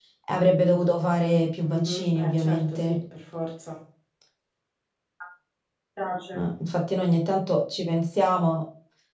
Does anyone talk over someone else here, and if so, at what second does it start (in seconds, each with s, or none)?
1.6 s